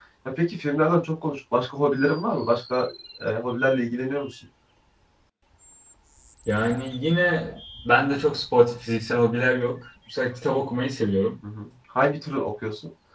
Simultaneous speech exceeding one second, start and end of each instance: none

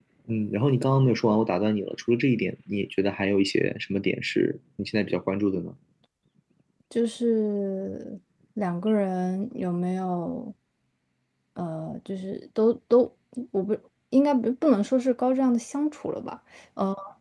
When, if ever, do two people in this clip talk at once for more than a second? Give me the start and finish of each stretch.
none

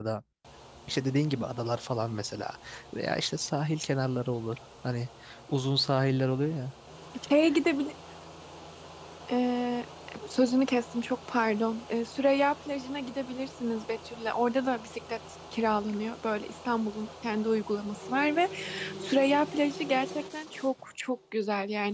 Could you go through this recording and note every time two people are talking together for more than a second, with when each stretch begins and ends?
none

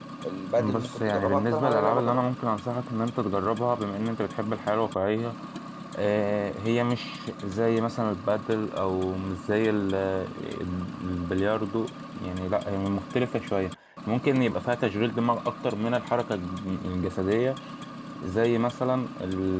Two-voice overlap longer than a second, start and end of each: 0.6-2.2

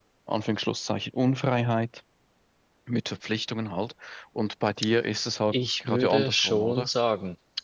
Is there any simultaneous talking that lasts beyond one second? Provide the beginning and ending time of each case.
5.5-6.9

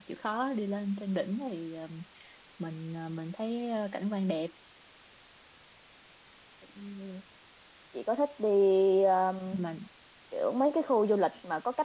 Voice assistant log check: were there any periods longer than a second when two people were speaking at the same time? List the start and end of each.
none

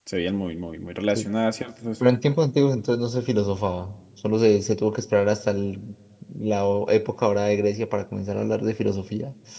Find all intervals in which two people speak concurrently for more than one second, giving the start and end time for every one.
none

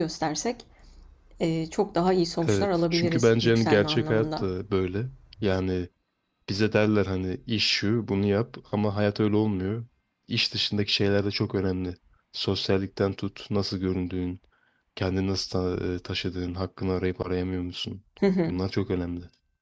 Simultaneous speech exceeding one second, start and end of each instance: 2.5-4.5

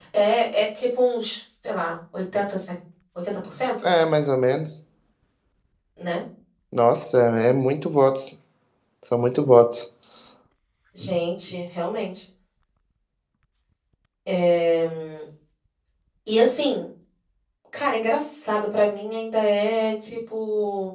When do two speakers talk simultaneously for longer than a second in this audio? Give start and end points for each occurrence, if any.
none

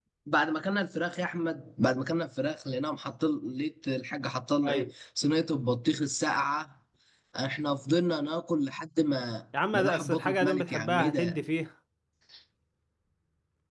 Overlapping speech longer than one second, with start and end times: 9.7-11.4

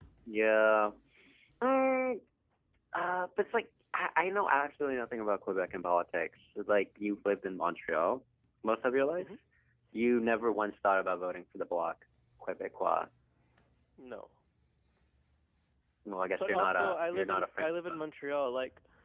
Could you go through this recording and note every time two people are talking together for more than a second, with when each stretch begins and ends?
16.4-18.0

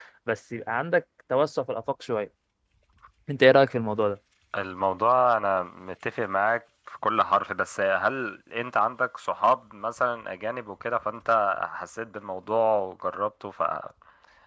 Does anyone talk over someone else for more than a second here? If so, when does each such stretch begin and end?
none

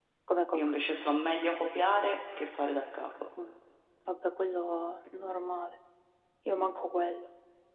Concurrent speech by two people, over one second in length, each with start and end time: none

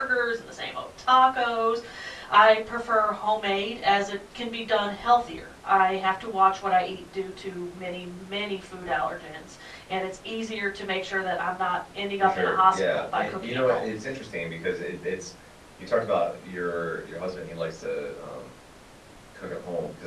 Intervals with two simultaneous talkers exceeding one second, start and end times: 12.2-13.8

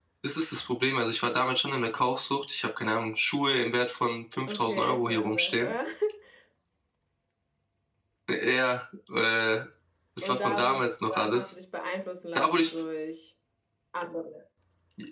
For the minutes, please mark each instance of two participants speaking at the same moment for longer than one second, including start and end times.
4.5-5.7, 10.2-11.6

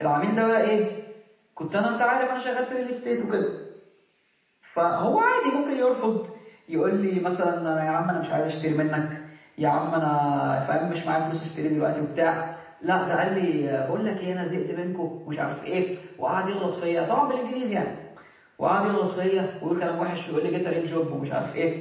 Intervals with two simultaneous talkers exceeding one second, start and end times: none

